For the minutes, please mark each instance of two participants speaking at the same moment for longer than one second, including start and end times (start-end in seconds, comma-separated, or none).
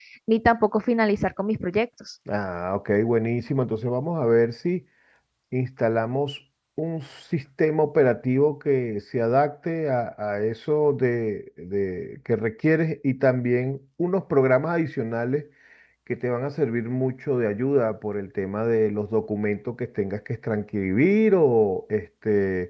none